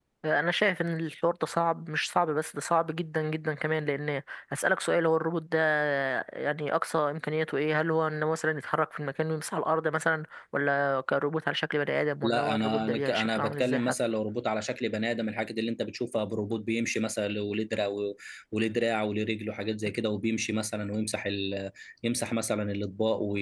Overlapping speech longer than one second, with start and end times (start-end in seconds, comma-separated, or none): 12.2-13.9